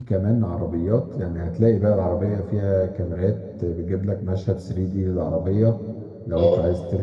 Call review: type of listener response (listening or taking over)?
listening